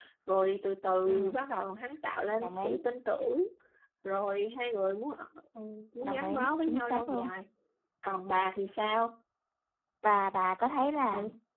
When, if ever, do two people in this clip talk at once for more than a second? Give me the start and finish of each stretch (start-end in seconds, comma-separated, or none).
6.0-7.3